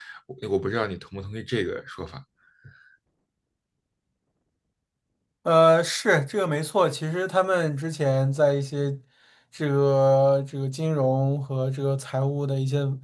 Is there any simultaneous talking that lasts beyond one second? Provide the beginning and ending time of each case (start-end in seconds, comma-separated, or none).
none